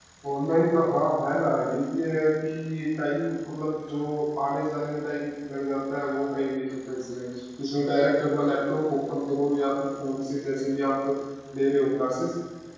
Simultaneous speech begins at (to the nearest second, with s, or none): none